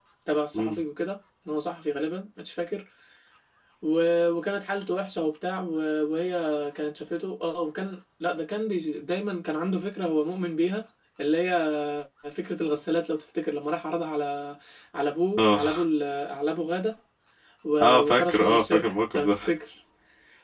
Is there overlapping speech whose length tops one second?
Yes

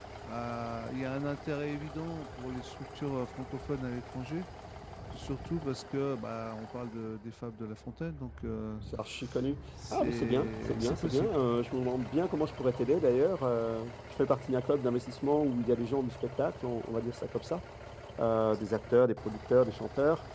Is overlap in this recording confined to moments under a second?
No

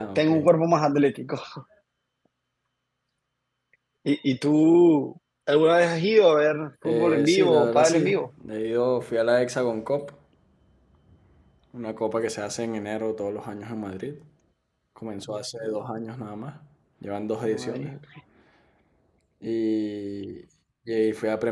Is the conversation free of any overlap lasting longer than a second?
No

